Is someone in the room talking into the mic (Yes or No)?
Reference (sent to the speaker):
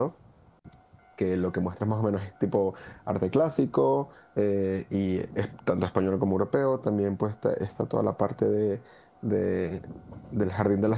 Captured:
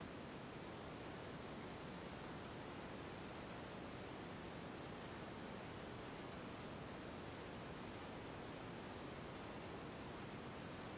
No